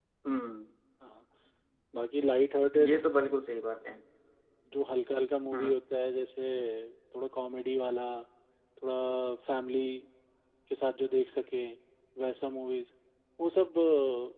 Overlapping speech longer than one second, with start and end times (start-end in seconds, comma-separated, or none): none